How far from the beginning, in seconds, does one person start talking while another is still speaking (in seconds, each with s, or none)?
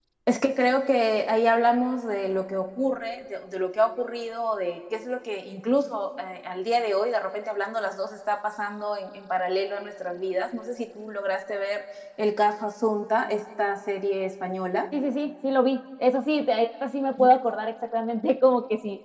none